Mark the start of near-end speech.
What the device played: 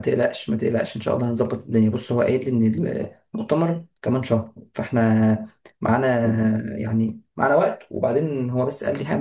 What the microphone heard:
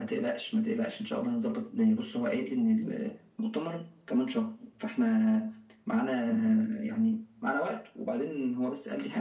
none

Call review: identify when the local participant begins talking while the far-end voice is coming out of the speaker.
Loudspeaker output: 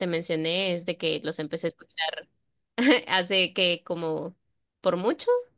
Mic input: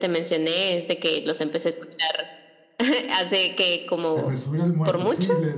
4.1 s

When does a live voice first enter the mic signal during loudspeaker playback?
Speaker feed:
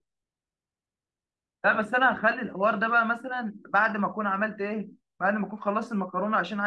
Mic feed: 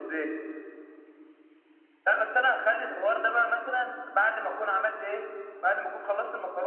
none

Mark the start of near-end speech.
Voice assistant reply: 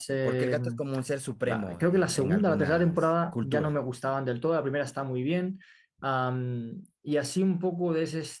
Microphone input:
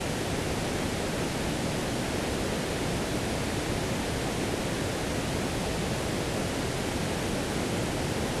none

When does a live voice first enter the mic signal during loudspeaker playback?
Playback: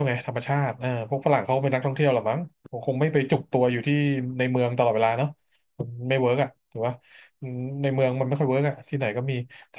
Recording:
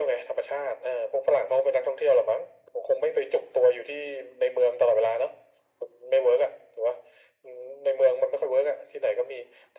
none

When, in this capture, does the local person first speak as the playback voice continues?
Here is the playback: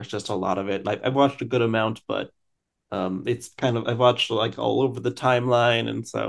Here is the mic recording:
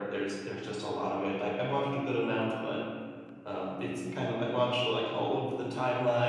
none

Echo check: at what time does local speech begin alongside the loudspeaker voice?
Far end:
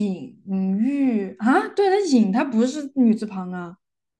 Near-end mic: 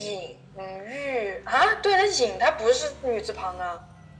none

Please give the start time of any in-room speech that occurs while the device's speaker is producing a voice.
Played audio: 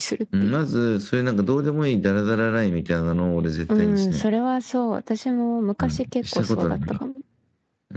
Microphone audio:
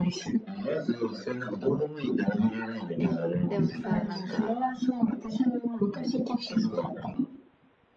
3.0 s

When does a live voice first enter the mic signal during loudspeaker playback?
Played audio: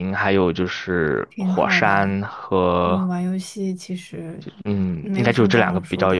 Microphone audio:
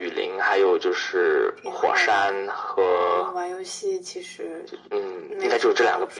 none

